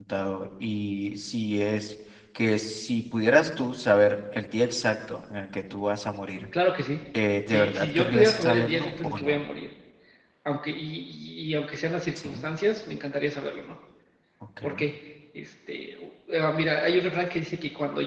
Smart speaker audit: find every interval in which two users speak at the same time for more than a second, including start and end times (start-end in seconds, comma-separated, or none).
7.5-9.4